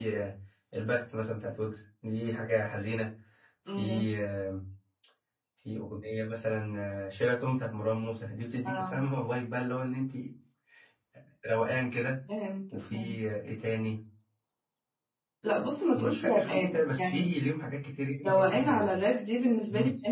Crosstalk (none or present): present